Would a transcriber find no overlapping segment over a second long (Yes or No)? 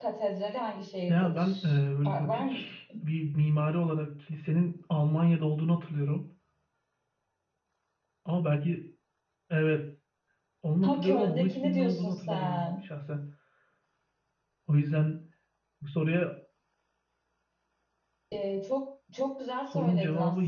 No